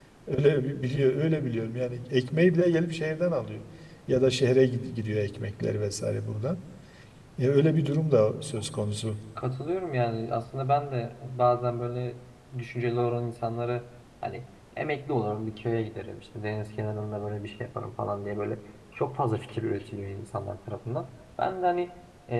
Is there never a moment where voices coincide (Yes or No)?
Yes